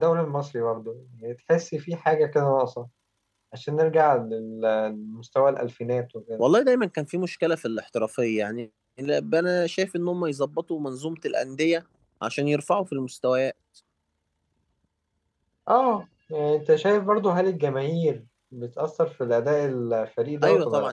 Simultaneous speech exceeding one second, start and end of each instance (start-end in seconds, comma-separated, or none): none